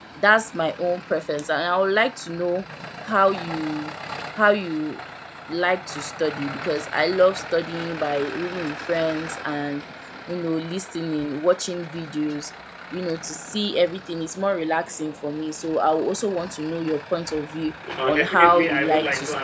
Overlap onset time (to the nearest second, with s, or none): 18 s